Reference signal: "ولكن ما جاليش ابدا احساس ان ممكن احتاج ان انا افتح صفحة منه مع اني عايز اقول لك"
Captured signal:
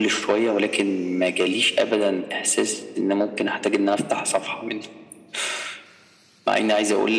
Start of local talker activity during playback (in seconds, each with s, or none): none